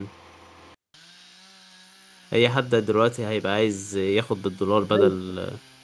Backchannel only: Yes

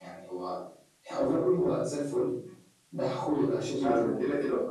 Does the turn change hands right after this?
Yes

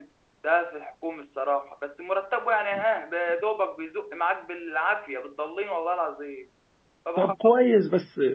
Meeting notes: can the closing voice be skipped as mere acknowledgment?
No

